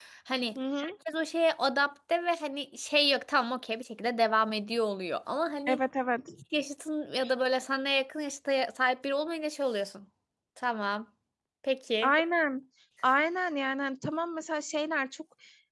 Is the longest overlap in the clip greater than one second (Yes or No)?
No